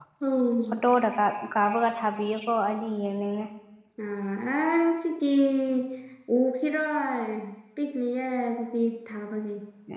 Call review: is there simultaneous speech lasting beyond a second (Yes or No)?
No